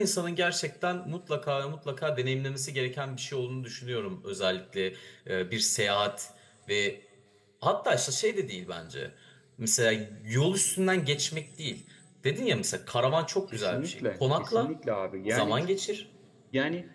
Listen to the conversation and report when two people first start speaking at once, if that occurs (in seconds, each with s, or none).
13.5 s